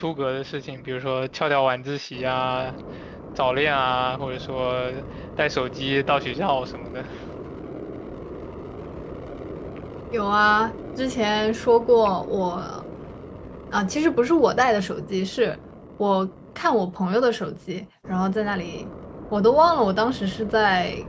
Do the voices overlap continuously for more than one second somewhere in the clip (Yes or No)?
No